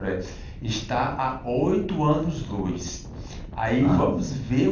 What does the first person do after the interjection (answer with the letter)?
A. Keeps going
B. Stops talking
A